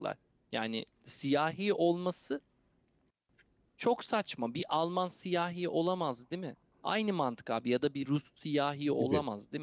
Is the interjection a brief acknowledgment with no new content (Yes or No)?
Yes